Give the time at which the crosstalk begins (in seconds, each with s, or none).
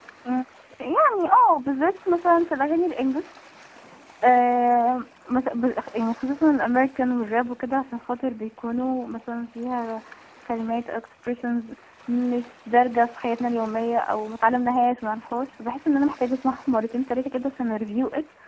none